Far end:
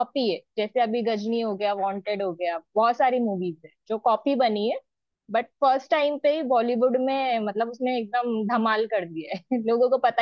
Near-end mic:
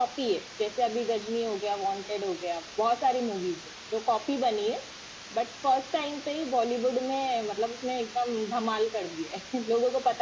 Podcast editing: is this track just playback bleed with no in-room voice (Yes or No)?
Yes